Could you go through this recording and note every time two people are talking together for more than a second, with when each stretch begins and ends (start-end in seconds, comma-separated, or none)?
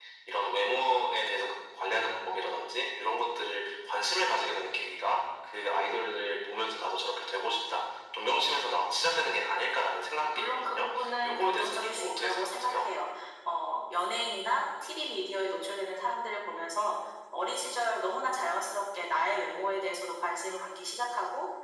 11.2-12.8